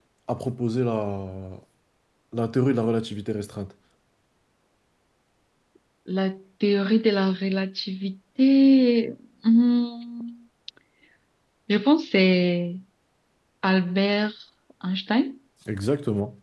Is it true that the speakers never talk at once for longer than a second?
Yes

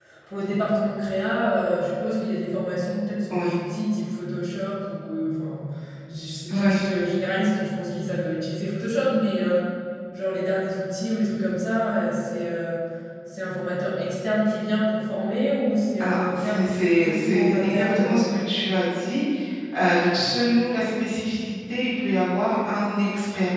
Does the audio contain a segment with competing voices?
Yes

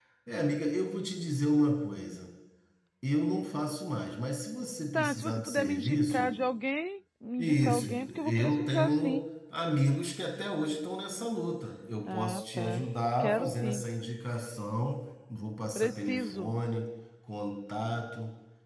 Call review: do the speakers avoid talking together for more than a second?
No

